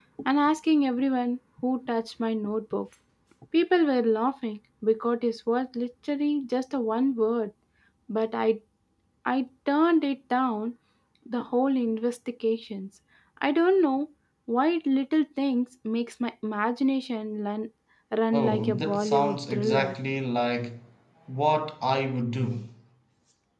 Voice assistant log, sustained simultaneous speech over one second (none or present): present